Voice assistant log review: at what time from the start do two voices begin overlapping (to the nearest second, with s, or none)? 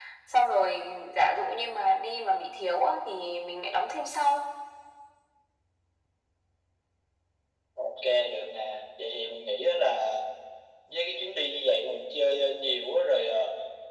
none